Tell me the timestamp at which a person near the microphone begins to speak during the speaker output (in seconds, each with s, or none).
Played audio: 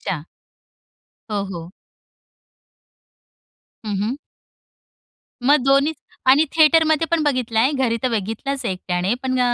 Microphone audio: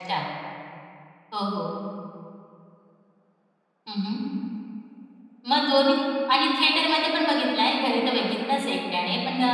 none